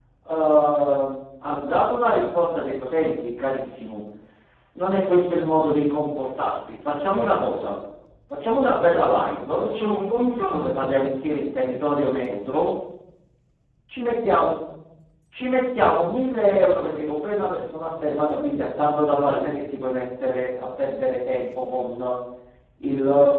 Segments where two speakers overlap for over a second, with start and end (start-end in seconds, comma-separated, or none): none